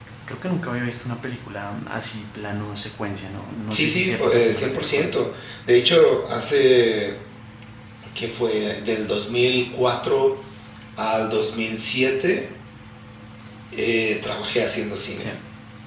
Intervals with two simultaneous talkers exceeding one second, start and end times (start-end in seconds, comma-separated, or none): 3.7-5.2